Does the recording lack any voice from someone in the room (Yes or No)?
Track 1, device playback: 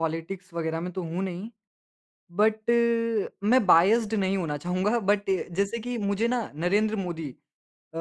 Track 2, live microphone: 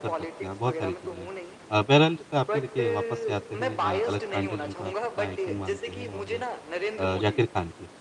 No